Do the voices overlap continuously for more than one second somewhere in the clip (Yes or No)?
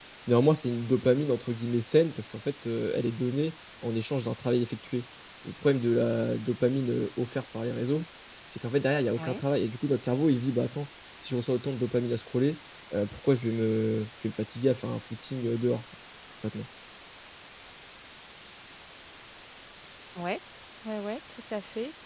No